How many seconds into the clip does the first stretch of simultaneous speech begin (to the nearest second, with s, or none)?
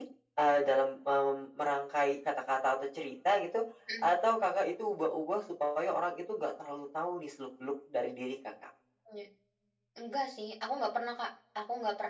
none